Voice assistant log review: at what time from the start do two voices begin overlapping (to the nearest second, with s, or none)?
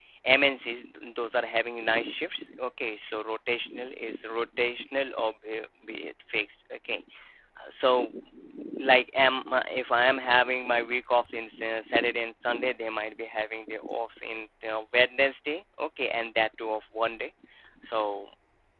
none